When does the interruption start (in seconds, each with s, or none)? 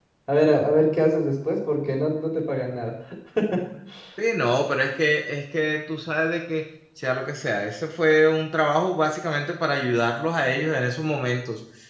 none